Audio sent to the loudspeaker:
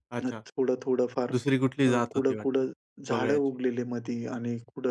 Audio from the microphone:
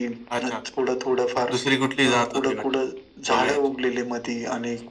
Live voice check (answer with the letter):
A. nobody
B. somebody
A